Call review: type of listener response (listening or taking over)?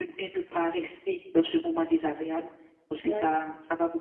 listening